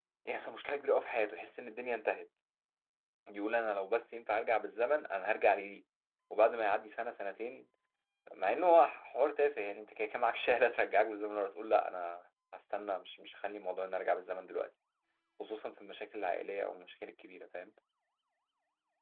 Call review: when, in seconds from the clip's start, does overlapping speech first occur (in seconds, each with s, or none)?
none